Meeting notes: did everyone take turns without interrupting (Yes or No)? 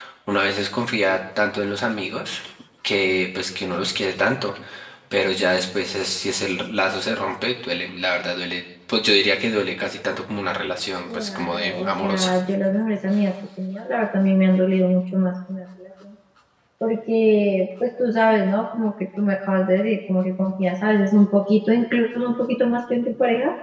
No